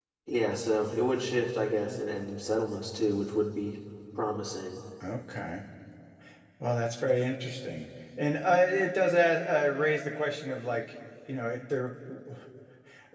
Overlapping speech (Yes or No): No